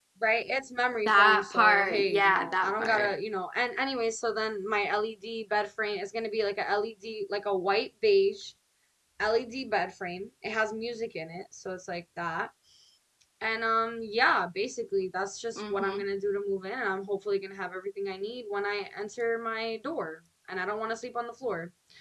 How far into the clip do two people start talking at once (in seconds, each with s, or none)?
1.1 s